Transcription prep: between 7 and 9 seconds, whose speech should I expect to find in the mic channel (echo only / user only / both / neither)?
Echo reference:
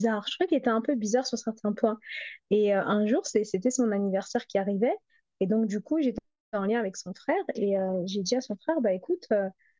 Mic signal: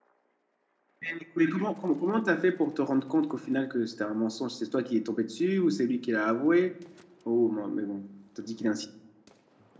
user only